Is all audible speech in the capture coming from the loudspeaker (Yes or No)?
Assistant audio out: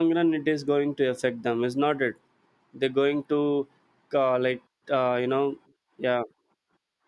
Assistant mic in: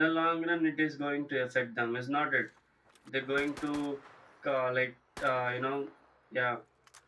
Yes